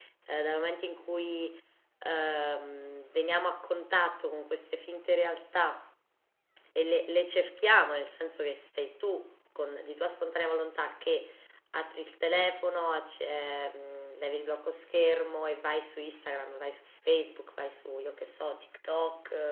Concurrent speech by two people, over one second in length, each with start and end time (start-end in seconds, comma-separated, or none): none